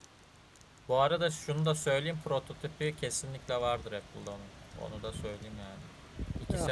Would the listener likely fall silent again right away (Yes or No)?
Yes